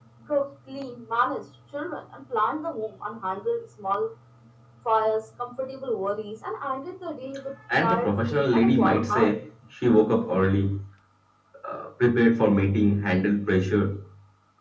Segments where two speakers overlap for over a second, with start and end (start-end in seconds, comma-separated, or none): 7.8-9.3